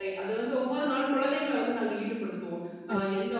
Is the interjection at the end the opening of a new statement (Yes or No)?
No